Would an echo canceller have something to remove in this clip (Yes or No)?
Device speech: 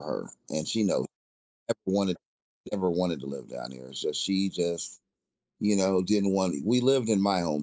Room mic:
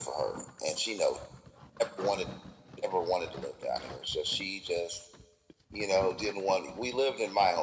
Yes